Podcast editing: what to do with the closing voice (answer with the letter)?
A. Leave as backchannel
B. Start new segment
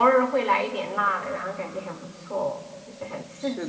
B